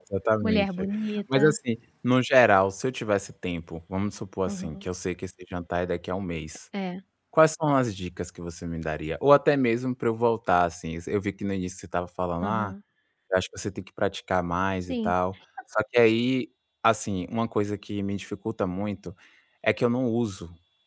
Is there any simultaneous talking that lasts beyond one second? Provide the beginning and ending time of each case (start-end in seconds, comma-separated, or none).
none